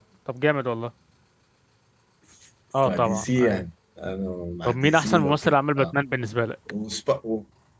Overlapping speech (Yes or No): Yes